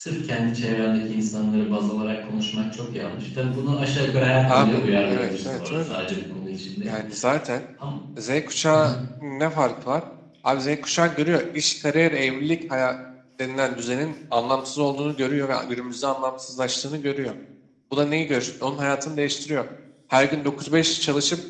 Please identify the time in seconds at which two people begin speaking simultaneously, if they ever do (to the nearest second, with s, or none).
4 s